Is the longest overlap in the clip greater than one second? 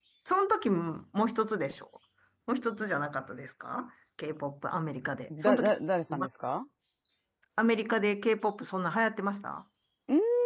No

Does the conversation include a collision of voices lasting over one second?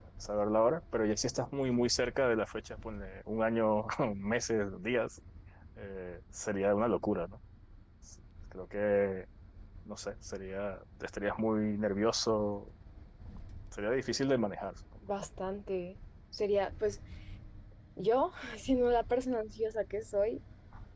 No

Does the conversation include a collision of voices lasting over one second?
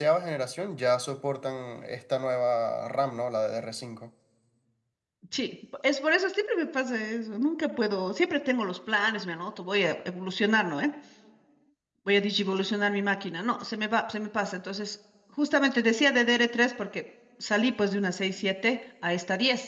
No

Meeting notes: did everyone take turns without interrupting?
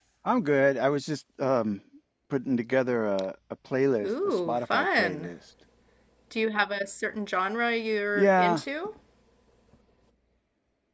No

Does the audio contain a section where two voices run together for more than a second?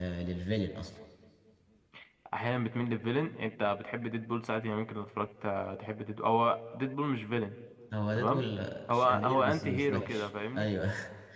Yes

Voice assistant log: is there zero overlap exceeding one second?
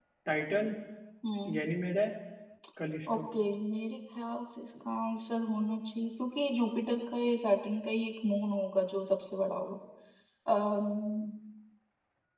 Yes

